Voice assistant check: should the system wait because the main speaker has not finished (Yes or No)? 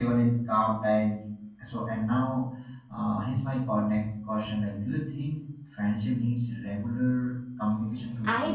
No